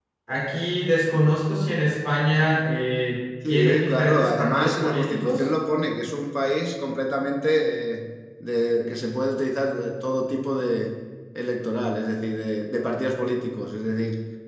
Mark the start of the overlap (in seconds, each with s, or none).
3.4 s